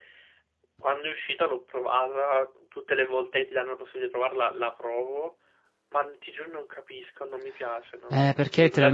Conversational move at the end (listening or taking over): taking over